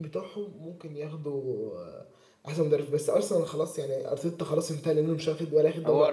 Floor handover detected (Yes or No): Yes